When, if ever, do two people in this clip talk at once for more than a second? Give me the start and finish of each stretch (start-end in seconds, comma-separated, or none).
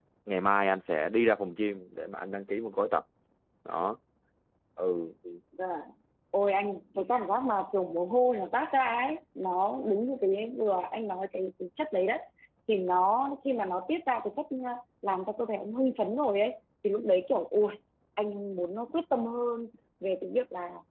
none